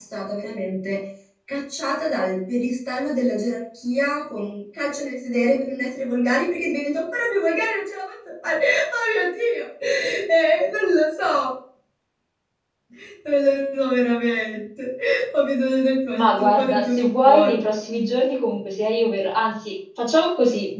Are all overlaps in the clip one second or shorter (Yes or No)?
No